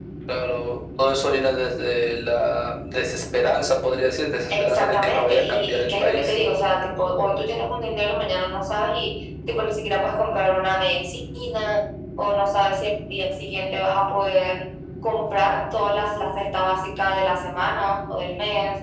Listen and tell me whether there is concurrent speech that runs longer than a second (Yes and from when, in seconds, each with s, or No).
Yes, from 4.5 s